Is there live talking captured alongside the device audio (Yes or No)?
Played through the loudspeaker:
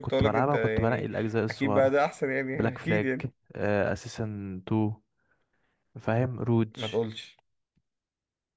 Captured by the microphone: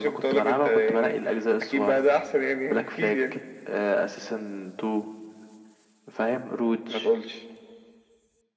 No